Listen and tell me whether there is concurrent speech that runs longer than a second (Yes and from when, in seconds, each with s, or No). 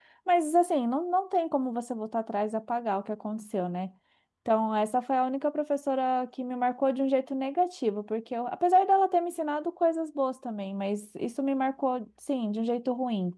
No